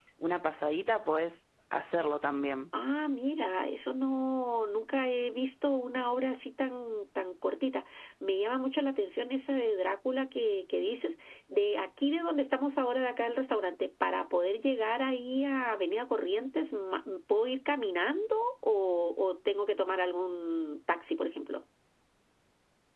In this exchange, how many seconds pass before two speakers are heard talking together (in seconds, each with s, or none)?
none